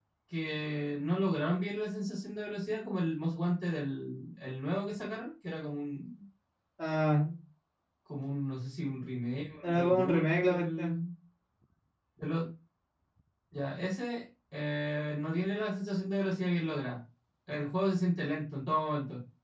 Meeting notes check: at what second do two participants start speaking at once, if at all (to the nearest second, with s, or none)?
10 s